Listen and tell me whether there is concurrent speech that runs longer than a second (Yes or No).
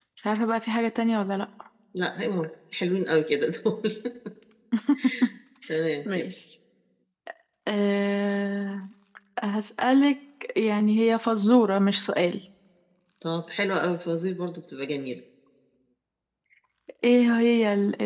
No